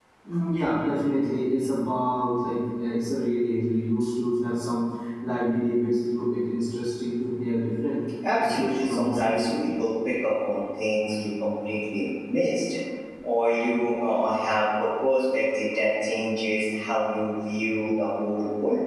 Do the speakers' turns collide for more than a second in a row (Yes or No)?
Yes